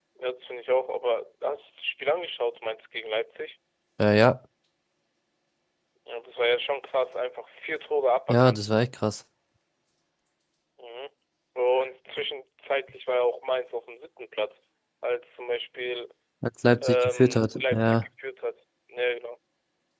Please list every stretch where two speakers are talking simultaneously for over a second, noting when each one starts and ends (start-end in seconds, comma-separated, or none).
16.8-18.0